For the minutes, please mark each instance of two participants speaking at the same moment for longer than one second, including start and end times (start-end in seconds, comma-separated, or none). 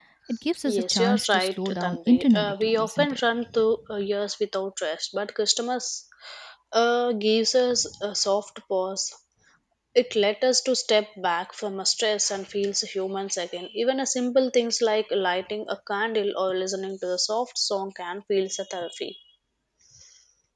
0.6-3.2